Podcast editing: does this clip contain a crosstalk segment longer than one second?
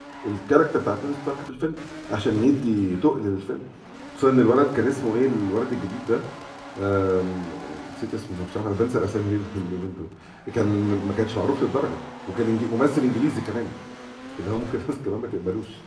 No

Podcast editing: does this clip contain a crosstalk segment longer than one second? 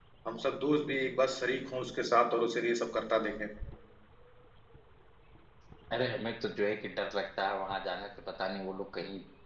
No

